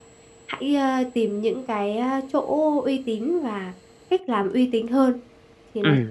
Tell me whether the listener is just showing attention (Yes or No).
No